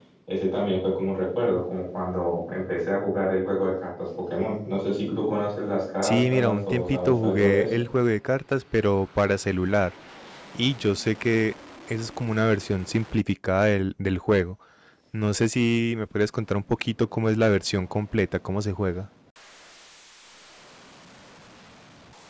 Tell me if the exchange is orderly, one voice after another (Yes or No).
No